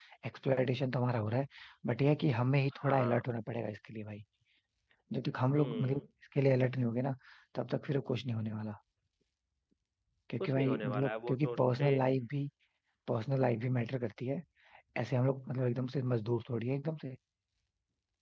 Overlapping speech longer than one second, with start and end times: 10.4-11.9

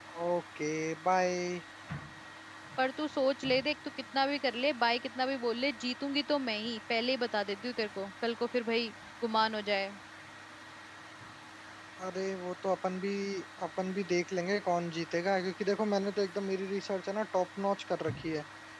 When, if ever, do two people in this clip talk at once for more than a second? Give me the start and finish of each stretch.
none

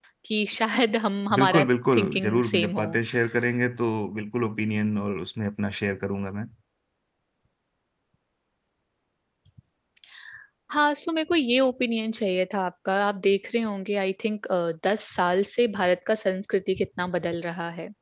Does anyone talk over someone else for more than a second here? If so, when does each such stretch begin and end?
1.3-2.9

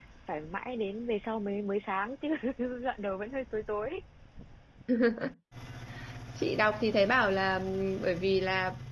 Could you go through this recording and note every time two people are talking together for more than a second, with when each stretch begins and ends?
none

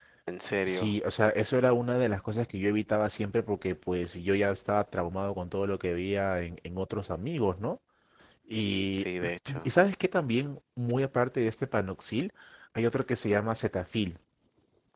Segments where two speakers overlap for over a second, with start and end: none

